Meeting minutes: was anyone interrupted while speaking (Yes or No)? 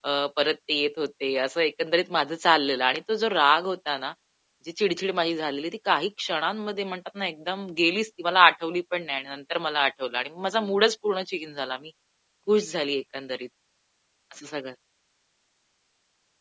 No